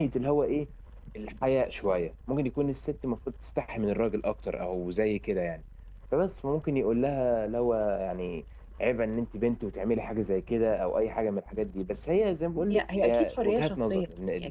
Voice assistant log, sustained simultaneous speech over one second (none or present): present